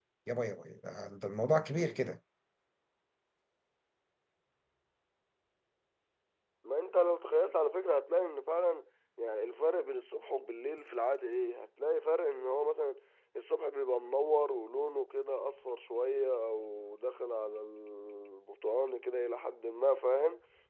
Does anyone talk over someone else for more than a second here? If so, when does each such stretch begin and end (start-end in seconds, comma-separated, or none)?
none